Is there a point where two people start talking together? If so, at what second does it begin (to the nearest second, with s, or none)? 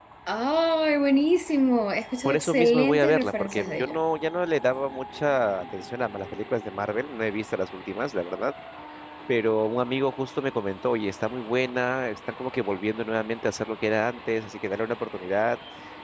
2 s